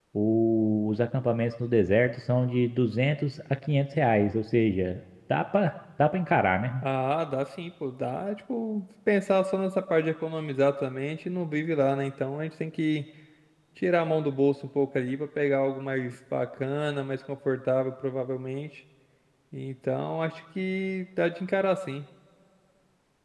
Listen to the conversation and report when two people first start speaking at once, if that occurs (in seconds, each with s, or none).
none